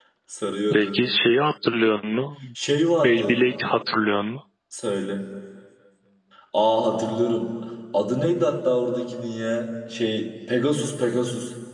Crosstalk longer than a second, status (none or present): none